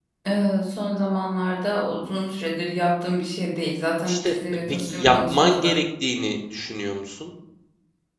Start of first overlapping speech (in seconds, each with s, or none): 4.0 s